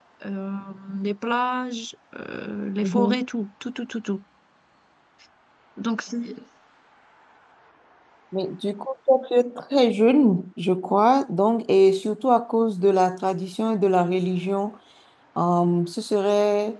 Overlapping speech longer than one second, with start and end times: none

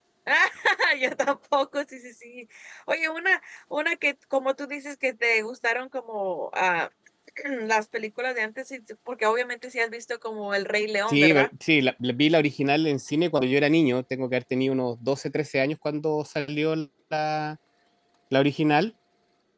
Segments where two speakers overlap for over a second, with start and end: none

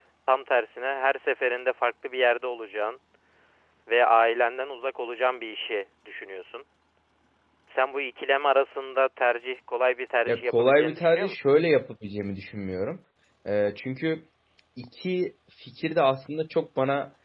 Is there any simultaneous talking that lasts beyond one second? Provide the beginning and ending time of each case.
10.3-11.5

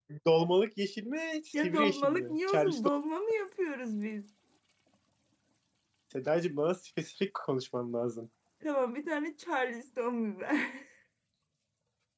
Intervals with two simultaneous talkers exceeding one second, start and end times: 1.5-2.8

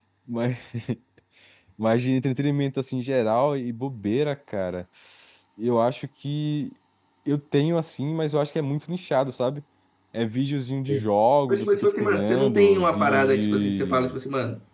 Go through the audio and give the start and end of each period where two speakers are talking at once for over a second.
11.5-14.2

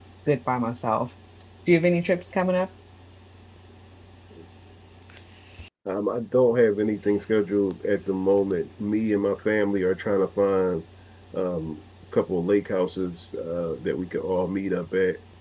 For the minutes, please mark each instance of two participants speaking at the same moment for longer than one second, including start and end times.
none

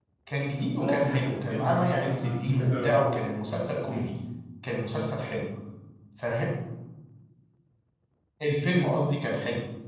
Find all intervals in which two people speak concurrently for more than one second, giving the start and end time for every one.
0.8-3.0

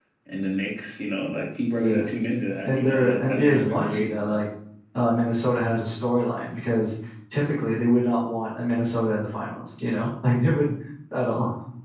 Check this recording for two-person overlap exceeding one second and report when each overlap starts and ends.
2.6-4.4

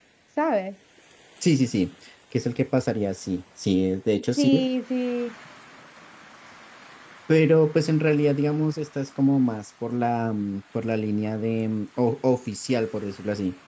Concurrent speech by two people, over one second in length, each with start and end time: none

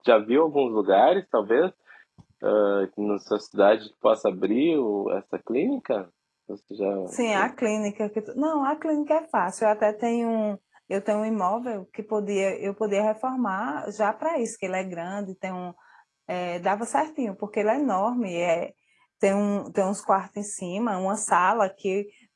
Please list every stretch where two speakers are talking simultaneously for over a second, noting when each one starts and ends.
none

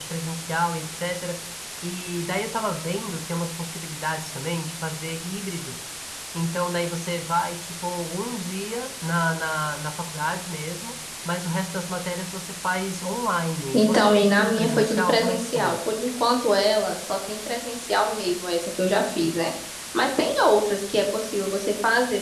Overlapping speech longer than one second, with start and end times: 13.8-15.8

